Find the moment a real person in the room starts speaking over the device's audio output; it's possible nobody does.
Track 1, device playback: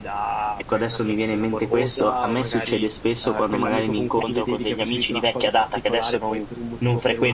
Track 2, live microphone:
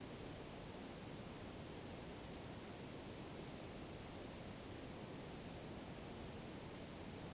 none

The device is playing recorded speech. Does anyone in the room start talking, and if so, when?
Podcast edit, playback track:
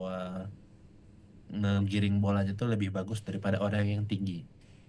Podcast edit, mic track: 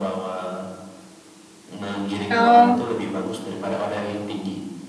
2 s

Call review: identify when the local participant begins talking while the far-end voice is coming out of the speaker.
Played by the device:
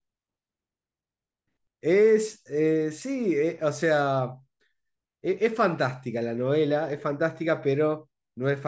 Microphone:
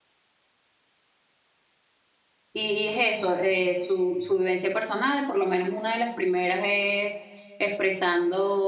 3 s

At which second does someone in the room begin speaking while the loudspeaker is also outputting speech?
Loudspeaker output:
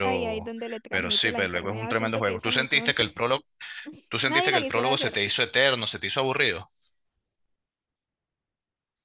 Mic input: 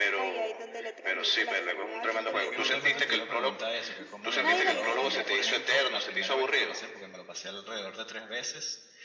2 s

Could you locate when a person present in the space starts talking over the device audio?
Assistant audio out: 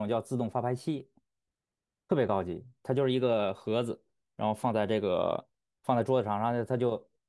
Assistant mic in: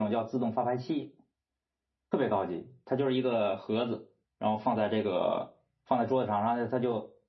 none

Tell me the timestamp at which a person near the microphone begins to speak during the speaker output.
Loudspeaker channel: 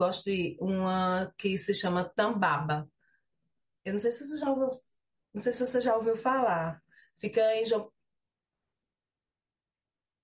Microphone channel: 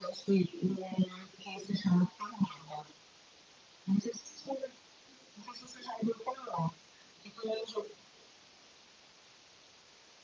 none

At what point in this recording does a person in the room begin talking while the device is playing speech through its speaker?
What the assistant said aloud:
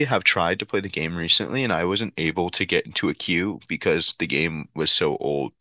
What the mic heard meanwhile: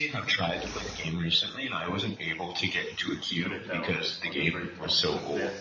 3 s

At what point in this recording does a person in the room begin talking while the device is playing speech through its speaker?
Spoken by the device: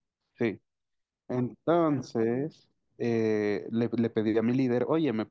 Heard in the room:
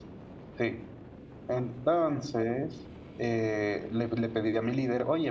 none

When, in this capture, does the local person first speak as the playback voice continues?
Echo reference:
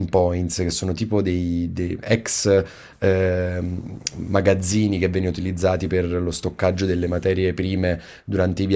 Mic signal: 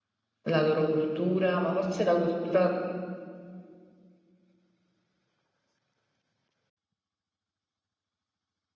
0 s

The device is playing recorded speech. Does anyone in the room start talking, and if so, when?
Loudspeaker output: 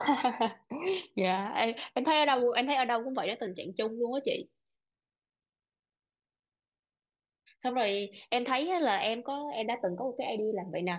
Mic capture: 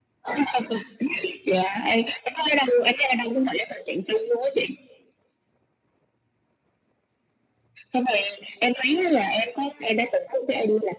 none

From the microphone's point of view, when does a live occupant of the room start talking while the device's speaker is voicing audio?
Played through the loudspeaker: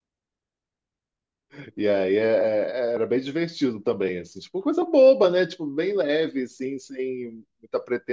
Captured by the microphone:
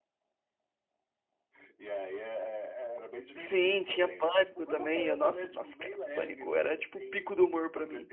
3 s

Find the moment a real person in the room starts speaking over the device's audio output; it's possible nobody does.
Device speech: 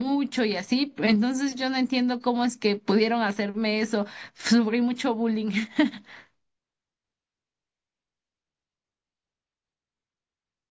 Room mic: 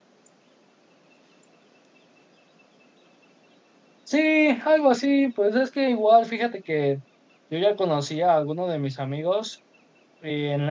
4 s

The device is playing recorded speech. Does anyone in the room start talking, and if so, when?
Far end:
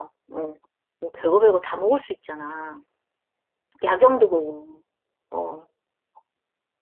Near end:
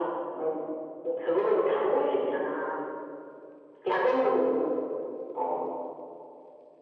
none

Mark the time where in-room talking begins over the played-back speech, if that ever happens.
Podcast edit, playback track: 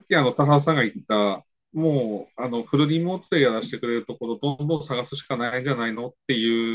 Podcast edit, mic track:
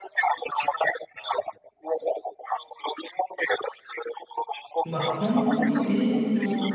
5 s

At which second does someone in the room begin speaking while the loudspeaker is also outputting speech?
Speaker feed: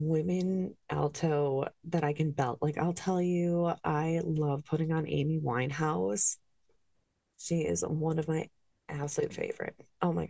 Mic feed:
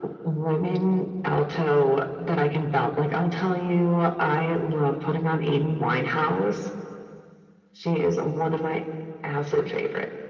none

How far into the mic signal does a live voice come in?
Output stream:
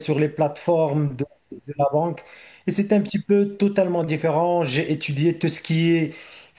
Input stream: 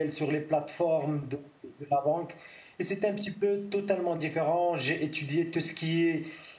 none

